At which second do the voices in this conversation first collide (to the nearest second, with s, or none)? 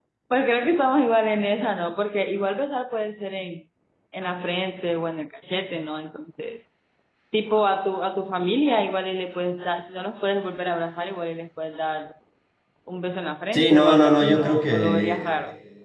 14 s